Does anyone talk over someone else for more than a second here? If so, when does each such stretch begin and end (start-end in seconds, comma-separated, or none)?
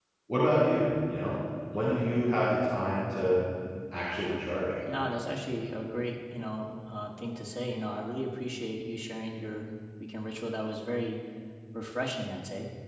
none